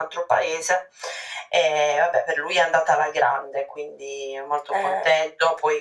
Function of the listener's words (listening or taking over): listening